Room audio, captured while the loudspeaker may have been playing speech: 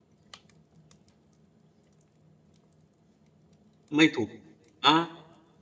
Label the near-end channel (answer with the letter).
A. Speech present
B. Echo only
A